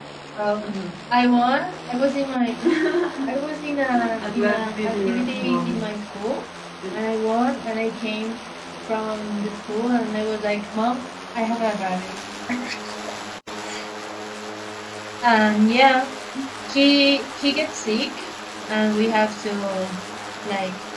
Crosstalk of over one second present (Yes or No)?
Yes